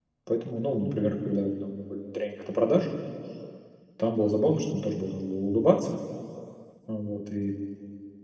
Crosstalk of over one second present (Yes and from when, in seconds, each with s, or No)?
No